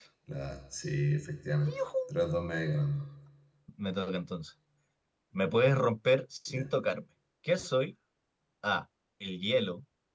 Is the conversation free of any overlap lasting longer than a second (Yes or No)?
Yes